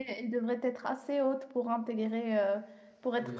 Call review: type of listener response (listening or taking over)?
listening